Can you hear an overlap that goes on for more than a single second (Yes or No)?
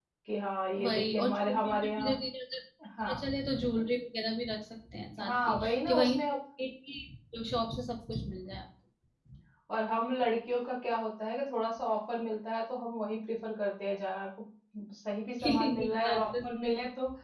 Yes